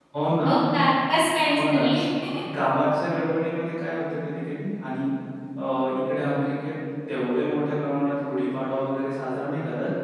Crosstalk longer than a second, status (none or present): none